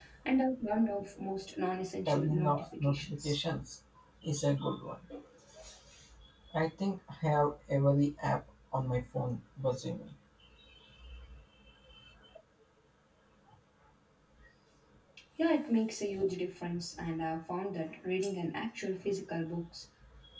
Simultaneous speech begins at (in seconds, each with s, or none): 2.0 s